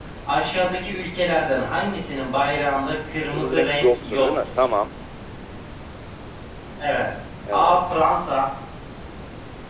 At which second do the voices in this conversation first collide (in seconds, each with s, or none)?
3.3 s